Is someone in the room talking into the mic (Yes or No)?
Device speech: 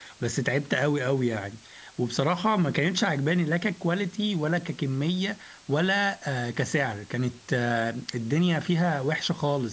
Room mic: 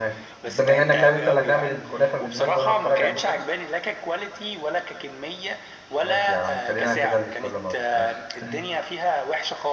Yes